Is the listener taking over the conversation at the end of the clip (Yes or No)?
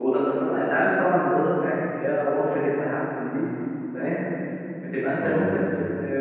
No